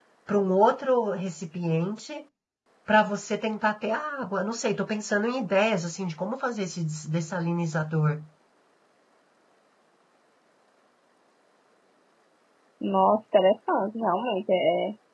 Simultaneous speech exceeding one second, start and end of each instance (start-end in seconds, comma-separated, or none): none